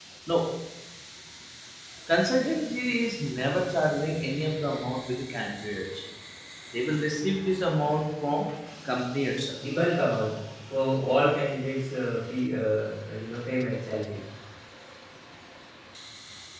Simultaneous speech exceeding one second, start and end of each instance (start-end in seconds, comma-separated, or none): none